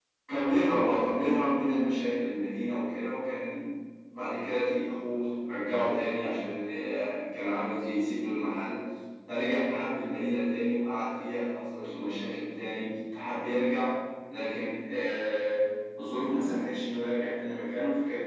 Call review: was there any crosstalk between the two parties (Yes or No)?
No